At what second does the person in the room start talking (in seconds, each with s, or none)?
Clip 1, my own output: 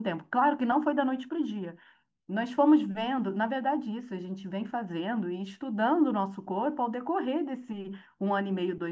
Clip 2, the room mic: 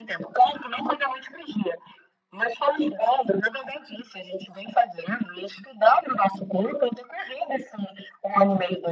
none